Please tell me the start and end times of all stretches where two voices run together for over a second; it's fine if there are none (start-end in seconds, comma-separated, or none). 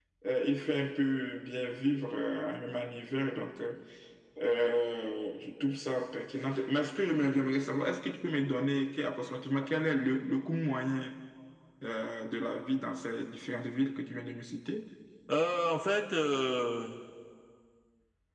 none